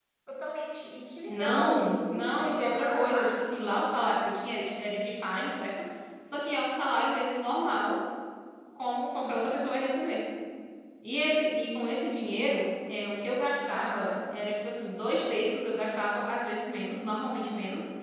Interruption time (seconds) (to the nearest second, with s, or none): 1 s